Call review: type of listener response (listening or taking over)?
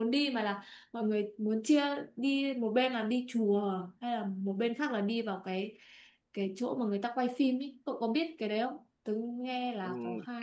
taking over